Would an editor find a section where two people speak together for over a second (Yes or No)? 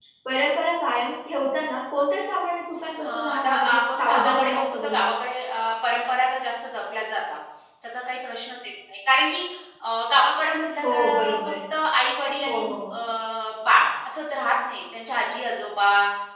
Yes